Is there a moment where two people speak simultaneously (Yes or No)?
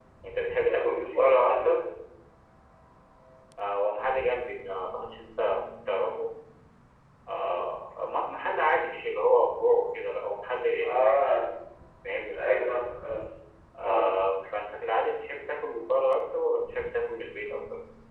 Yes